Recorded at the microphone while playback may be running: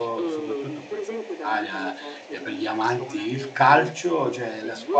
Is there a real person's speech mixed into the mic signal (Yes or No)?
Yes